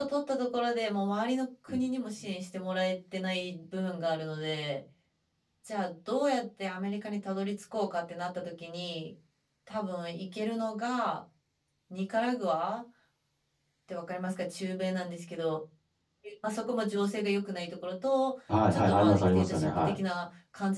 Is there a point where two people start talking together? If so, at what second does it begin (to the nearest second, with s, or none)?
18 s